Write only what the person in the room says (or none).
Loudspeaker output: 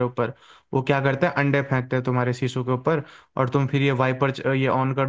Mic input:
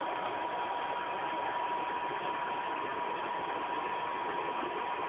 none